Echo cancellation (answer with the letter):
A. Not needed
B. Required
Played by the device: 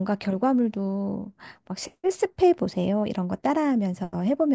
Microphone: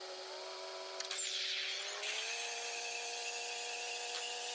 A